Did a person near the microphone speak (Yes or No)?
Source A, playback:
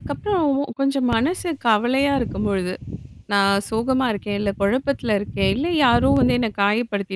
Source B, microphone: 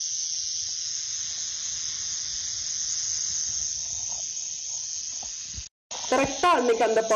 Yes